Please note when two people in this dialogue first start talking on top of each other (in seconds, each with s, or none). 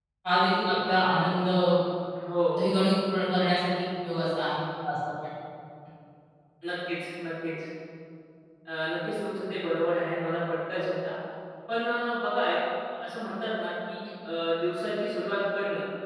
none